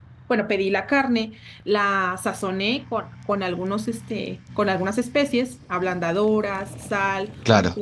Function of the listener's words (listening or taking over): listening